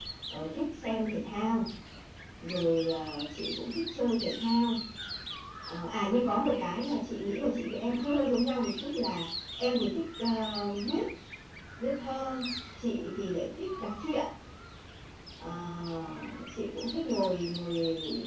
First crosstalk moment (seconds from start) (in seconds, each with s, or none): none